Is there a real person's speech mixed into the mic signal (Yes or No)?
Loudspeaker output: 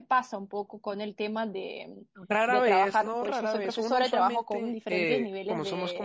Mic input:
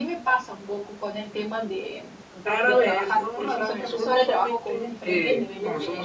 No